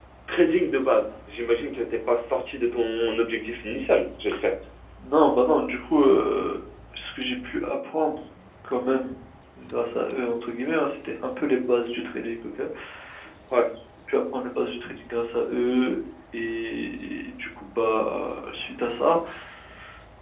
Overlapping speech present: No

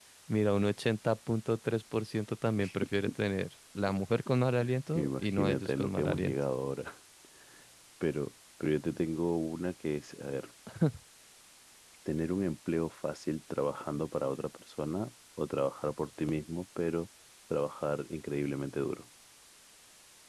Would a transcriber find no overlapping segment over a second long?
No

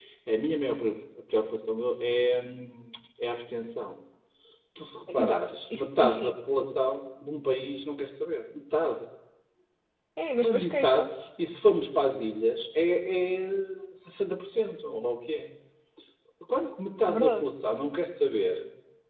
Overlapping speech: Yes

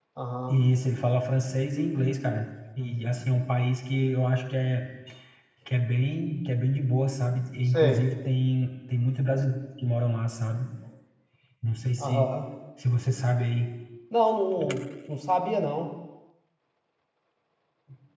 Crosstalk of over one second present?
No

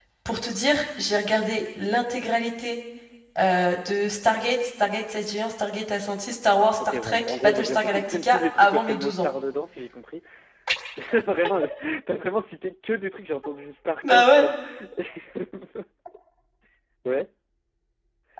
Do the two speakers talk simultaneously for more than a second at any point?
Yes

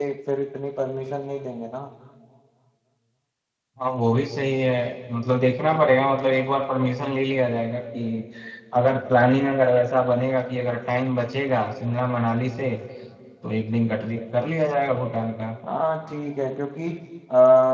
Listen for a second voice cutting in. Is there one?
No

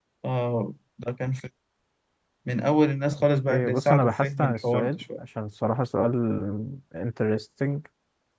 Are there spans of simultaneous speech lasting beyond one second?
Yes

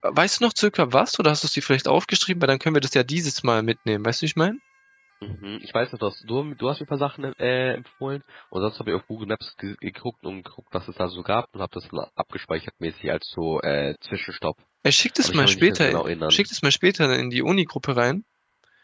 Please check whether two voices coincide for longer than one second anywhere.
Yes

